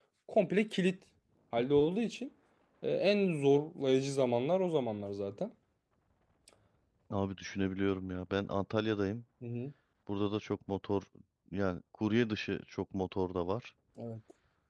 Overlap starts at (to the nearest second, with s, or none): none